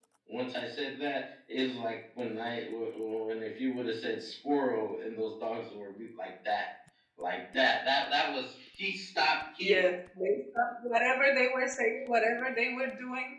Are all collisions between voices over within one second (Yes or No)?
Yes